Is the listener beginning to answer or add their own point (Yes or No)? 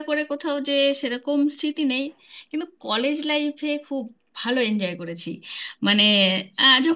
No